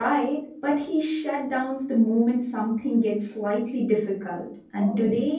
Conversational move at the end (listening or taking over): listening